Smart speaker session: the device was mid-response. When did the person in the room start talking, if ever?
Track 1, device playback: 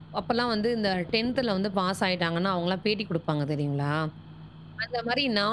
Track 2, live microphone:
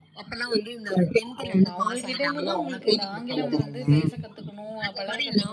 1 s

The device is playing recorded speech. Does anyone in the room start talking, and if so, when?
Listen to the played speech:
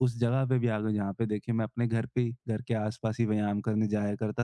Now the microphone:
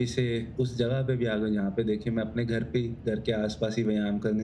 none

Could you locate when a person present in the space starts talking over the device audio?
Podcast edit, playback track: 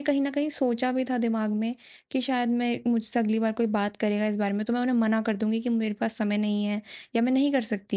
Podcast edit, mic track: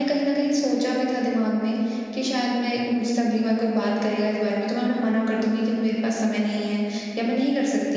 none

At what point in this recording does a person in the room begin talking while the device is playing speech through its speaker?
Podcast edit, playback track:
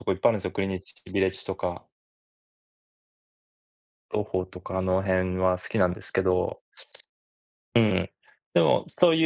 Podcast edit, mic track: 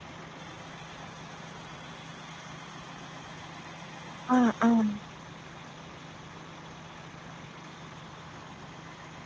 4 s

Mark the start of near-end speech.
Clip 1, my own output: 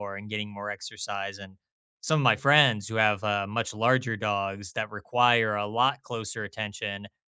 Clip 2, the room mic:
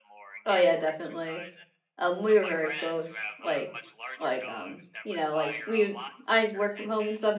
0 s

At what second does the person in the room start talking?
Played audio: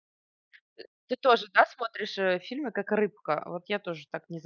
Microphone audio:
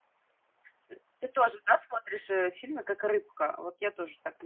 none

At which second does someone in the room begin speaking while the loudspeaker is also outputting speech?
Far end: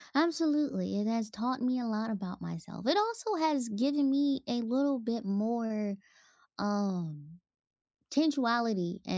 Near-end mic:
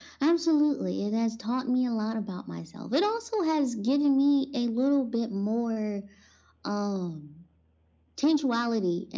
none

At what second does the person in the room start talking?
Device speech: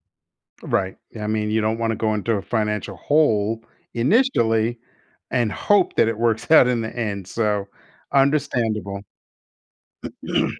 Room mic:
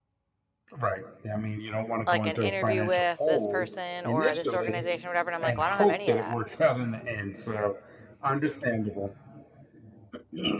2 s

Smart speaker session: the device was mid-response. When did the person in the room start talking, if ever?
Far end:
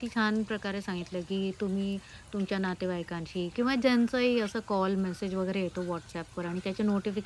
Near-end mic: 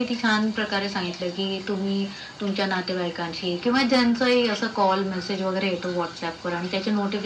none

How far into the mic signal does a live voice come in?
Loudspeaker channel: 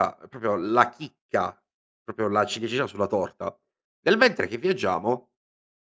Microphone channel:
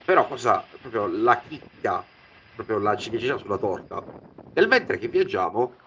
none

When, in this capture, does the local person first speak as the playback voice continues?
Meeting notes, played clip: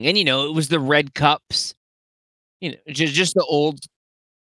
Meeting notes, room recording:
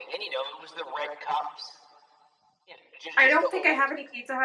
3 s

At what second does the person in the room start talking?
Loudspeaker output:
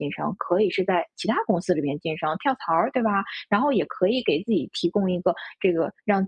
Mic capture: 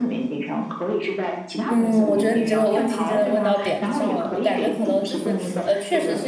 2 s

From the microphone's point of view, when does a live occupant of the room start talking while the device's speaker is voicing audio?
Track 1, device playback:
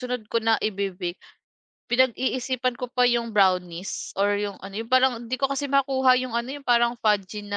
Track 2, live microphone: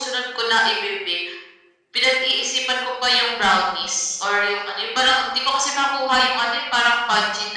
none

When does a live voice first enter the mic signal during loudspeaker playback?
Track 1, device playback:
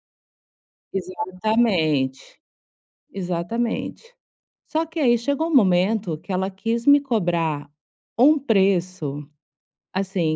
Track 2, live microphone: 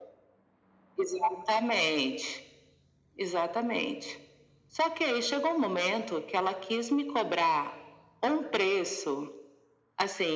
none

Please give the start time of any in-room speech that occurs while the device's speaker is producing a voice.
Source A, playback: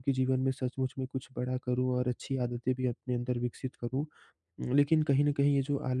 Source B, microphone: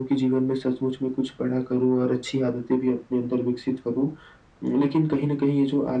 none

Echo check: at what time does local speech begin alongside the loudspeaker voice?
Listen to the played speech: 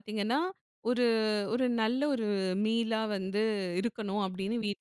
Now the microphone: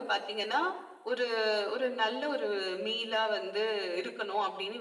none

